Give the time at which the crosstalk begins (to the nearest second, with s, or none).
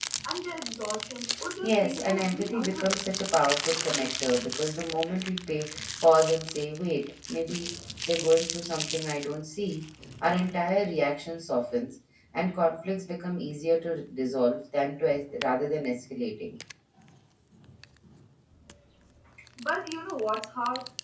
2 s